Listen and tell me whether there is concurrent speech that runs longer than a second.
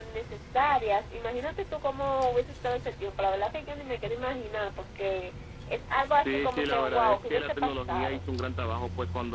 Yes, from 6.2 s

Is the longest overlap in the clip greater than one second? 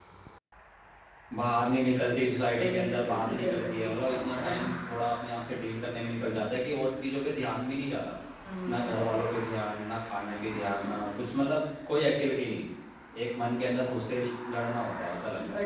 Yes, from 2.6 s

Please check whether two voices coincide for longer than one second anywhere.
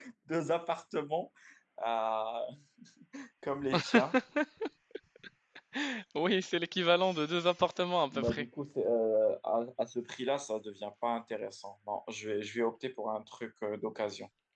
No

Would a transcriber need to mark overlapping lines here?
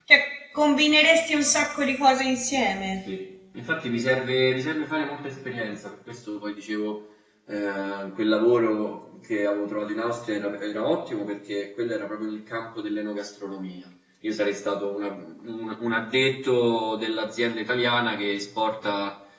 No

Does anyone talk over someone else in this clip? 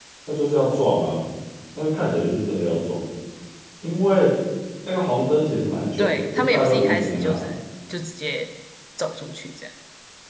Yes, from 6.0 s

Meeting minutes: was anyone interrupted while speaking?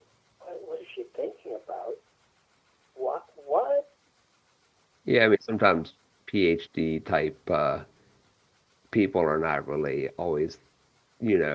No

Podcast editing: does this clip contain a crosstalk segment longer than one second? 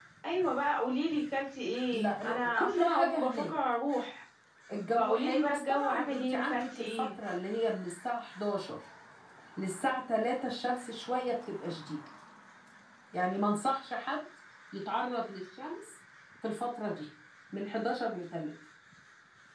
Yes, from 1.9 s

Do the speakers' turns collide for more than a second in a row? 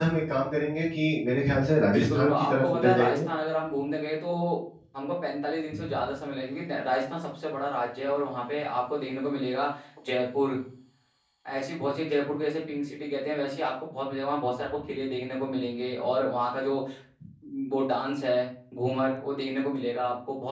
Yes, from 1.9 s

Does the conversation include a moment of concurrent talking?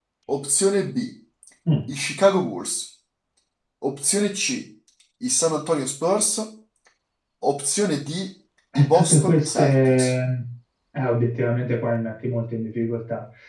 Yes, from 8.8 s

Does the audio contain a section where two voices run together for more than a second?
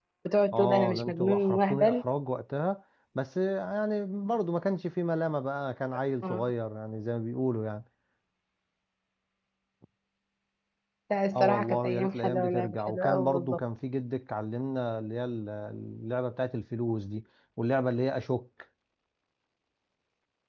Yes, from 0.5 s

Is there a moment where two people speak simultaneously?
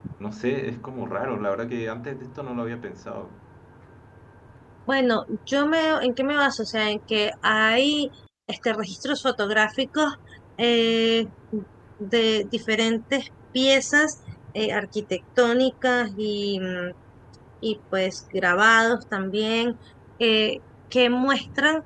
No

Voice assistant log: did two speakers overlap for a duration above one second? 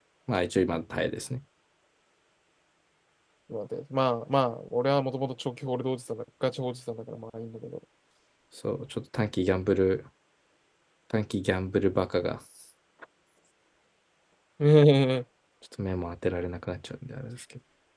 No

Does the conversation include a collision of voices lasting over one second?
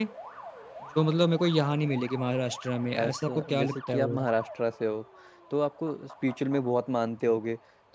Yes, from 2.9 s

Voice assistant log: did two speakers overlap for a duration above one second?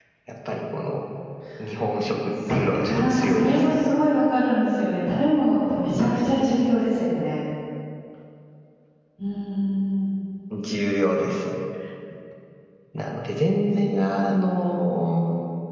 Yes, from 2.5 s

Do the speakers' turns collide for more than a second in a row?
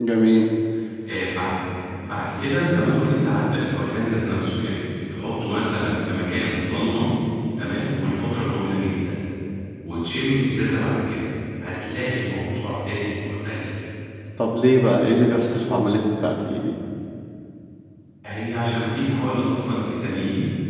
No

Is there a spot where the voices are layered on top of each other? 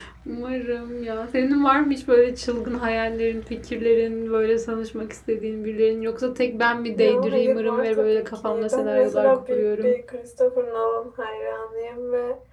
Yes, from 7.0 s

